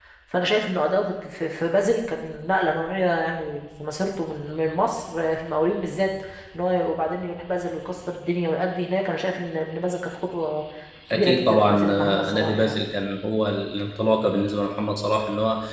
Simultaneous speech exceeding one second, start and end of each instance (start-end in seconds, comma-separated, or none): 11.1-12.7